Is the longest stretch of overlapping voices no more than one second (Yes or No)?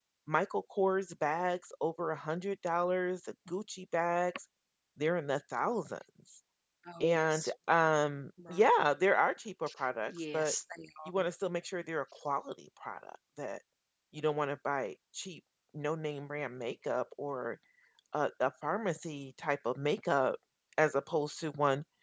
Yes